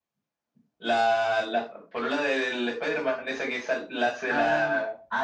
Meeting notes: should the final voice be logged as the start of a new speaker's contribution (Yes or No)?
Yes